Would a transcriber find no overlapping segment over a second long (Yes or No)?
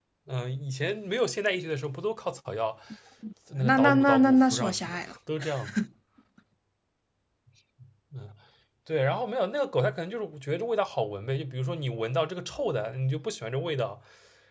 No